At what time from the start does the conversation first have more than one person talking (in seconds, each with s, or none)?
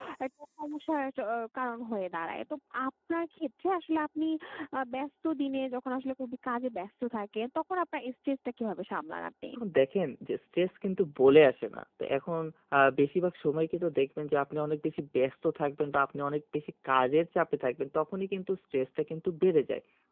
none